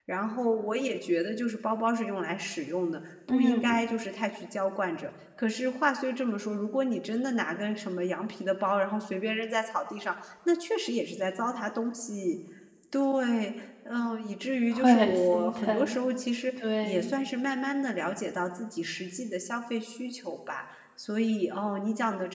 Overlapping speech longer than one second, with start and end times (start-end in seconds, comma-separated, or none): 14.7-16.0